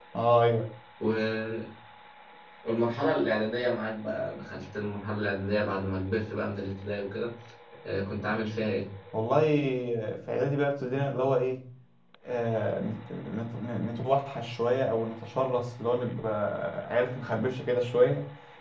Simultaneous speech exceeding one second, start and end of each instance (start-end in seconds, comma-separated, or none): none